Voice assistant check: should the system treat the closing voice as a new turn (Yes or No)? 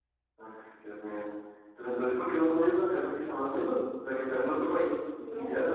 Yes